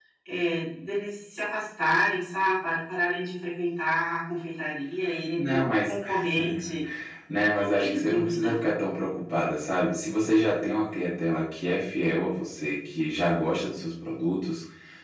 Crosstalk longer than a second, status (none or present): present